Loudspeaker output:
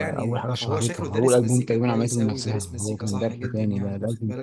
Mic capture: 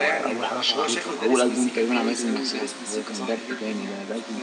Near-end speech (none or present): none